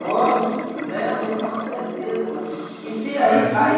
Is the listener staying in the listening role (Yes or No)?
Yes